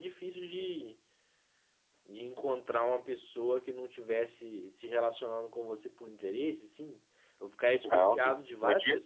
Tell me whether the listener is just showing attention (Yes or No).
No